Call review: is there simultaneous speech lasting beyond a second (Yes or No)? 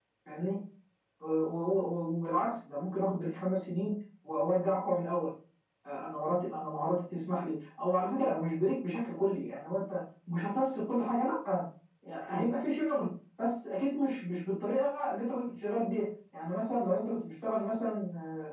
No